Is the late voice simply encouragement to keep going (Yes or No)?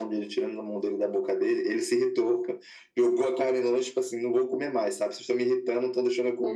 Yes